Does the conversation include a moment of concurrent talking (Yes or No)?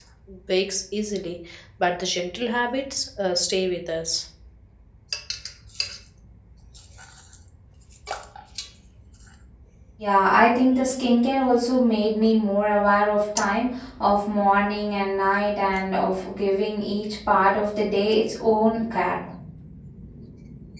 No